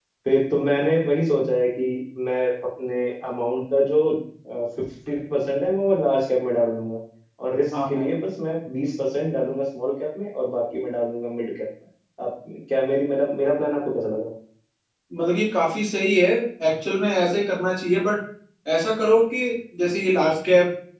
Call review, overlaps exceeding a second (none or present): none